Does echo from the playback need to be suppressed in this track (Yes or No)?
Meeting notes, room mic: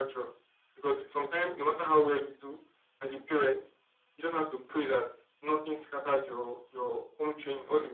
Yes